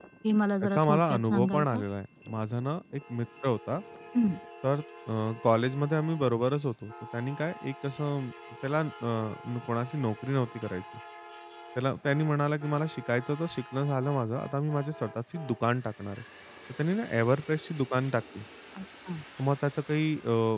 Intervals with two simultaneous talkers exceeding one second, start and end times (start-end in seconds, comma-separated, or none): 0.6-1.8